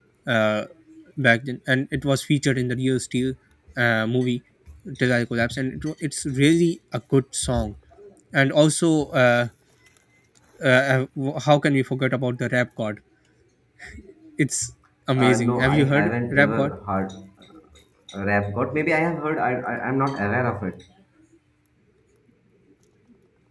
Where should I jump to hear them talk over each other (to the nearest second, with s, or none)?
15 s